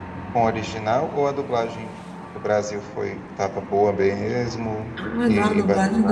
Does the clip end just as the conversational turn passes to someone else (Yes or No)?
Yes